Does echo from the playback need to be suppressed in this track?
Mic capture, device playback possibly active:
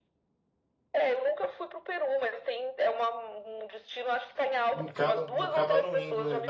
Yes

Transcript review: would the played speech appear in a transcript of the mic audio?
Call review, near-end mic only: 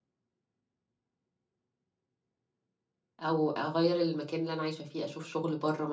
No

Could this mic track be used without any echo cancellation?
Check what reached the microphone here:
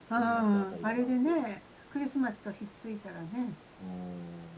No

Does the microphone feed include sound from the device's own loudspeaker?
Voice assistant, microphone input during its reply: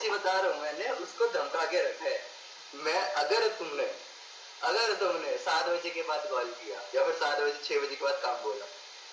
Yes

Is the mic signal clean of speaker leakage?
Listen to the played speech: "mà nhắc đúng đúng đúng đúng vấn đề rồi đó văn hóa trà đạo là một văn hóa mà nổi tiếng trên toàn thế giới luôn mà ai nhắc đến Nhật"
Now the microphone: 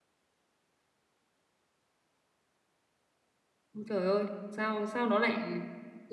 Yes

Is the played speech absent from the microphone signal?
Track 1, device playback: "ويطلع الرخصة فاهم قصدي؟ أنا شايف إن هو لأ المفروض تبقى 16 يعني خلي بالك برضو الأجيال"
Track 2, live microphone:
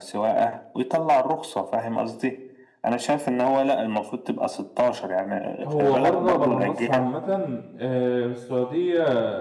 No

